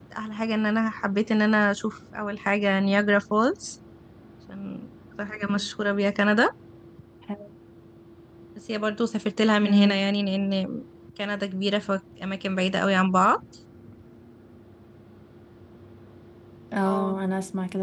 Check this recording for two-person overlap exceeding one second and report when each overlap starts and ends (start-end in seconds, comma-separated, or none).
none